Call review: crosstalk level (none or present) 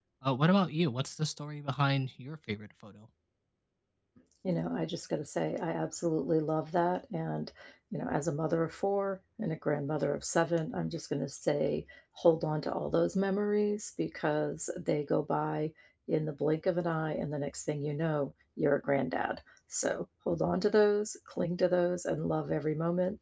none